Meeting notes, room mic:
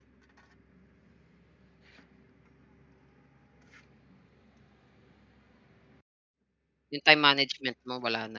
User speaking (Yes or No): Yes